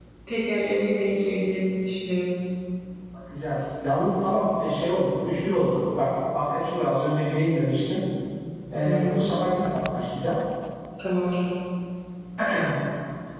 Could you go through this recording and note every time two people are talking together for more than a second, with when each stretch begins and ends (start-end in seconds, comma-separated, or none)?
none